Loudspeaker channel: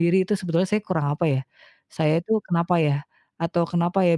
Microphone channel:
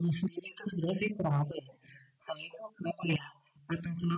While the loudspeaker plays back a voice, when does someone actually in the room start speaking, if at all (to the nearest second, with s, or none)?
none